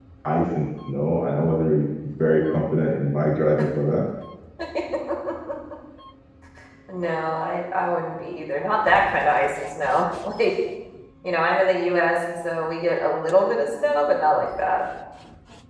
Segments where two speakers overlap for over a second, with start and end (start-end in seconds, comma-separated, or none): none